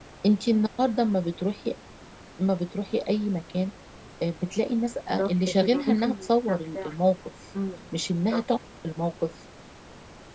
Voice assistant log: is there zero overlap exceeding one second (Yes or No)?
No